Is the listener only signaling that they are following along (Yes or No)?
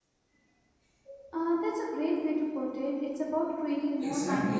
No